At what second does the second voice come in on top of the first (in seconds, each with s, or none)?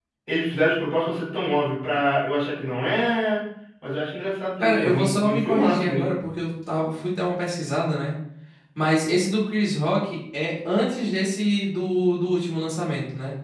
4.6 s